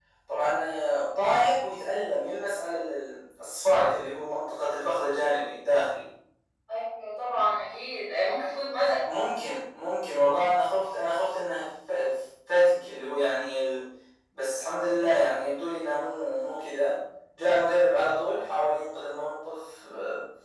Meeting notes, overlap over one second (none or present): none